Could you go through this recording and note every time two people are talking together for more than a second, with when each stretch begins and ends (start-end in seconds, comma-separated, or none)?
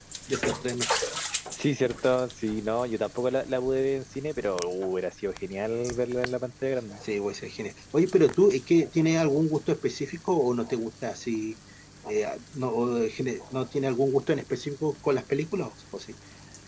none